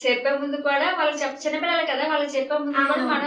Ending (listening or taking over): listening